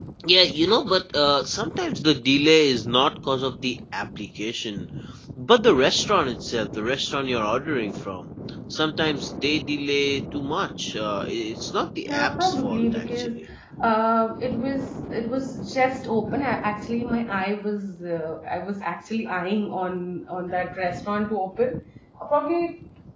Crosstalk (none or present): present